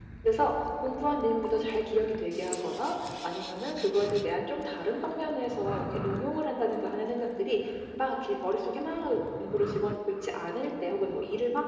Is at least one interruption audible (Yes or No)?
No